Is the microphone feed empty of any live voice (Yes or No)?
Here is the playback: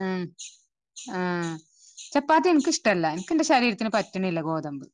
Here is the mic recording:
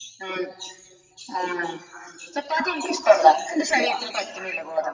Yes